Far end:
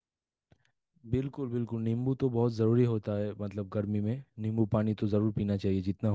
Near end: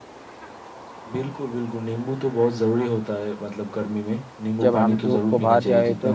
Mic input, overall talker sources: both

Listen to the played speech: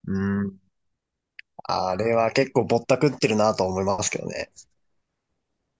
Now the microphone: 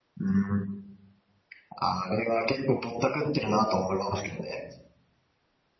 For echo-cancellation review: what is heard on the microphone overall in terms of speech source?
echo only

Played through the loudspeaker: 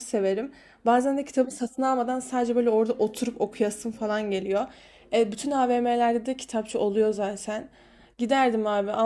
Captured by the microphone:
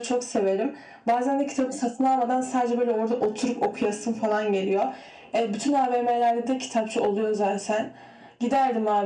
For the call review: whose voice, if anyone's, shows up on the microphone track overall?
echo only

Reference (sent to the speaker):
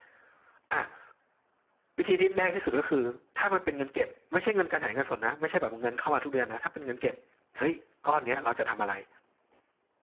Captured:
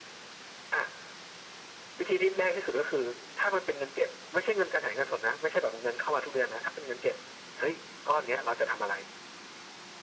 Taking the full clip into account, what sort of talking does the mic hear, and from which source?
echo only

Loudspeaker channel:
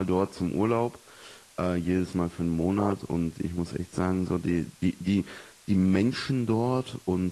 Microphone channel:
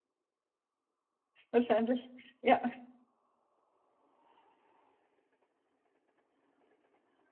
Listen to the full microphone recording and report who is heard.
user only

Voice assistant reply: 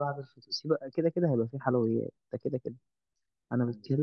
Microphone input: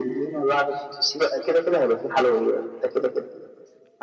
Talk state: echo only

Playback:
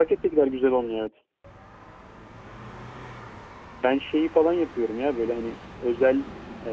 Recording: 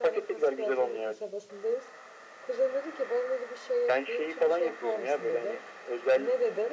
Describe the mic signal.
both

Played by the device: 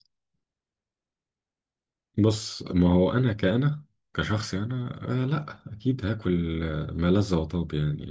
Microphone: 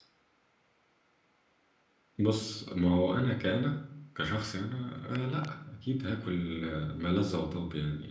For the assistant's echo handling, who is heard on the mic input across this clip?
echo only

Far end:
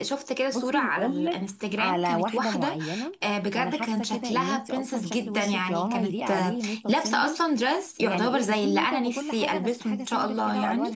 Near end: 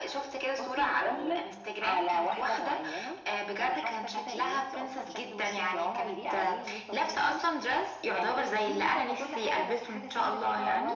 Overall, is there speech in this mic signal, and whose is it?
echo only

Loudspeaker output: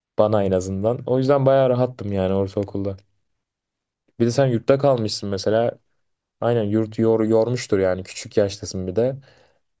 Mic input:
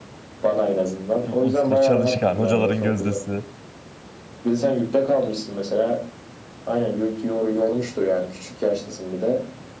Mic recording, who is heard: both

